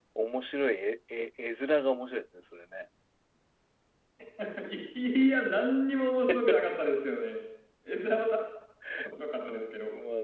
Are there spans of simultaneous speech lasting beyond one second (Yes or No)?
No